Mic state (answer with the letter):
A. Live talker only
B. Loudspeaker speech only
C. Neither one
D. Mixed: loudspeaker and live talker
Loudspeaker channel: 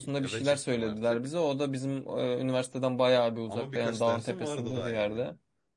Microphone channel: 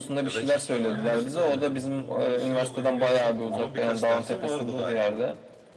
D